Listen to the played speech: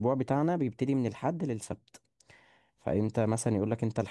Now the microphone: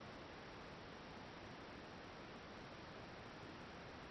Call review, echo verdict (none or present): none